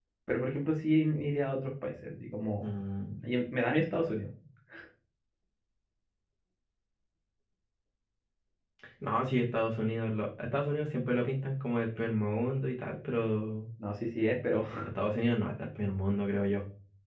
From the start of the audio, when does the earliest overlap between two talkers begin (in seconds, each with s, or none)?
none